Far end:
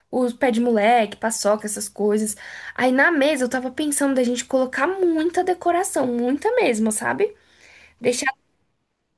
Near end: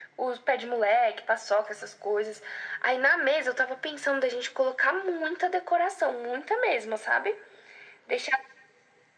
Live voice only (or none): none